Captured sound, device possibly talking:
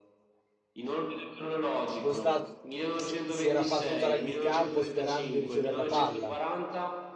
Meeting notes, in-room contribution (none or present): present